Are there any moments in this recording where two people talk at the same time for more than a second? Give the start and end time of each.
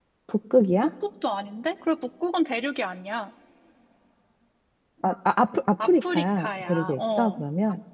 5.8-7.4

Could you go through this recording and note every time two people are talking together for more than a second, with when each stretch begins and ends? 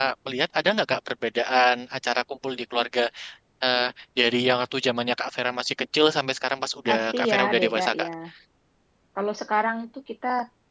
6.9-8.1

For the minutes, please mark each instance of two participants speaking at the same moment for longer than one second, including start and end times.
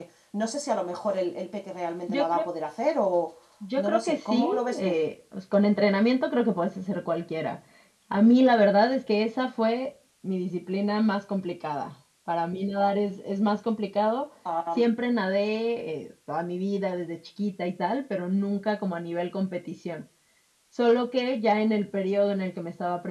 3.8-5.0

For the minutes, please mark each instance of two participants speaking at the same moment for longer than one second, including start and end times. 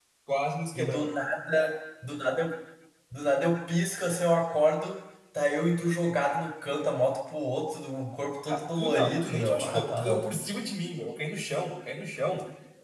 8.5-10.3

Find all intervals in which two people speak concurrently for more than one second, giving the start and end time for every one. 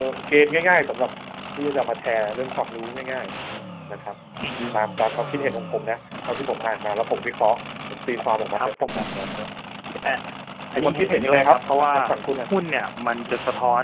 10.7-11.9

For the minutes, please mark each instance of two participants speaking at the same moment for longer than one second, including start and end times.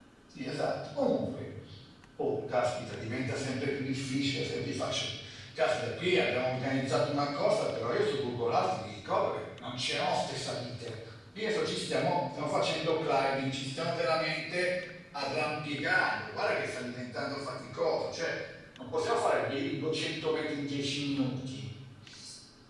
none

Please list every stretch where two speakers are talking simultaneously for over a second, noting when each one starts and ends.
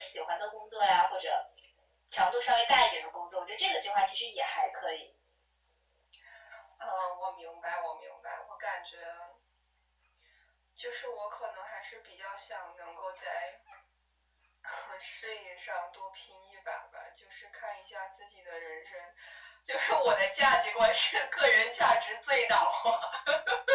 none

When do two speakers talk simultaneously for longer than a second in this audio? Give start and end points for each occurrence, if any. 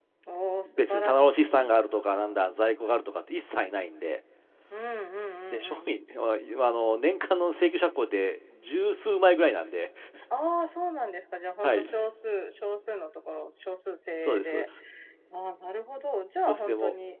0.7-2.0

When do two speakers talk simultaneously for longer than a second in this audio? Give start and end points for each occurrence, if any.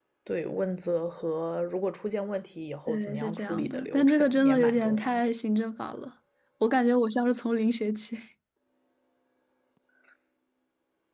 2.9-5.2

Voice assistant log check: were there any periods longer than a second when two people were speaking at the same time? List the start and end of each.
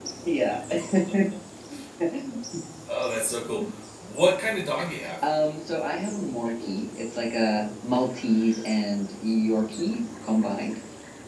none

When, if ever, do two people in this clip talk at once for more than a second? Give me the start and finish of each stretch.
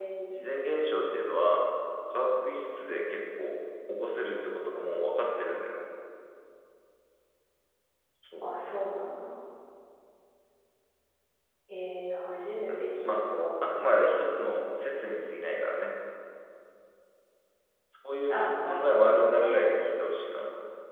18.3-19.6

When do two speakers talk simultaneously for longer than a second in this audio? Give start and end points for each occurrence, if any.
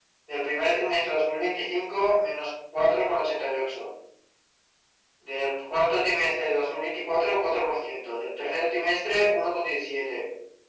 none

